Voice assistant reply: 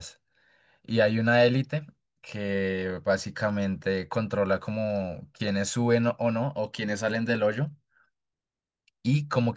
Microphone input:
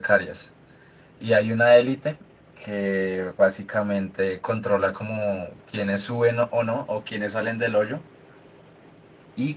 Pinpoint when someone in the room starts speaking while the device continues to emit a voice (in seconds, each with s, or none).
none